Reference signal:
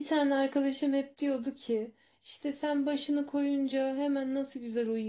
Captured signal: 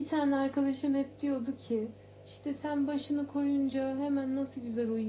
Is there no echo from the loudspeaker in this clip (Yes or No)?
No